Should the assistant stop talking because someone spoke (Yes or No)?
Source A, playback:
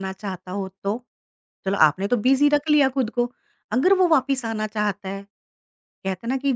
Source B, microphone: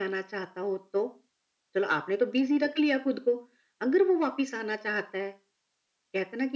No